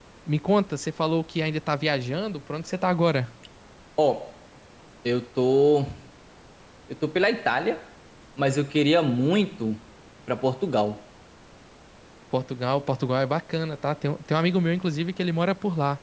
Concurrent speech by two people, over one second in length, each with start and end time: none

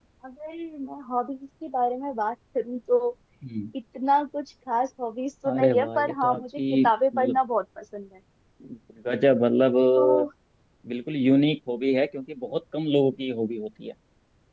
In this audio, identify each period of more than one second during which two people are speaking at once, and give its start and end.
5.5-7.4

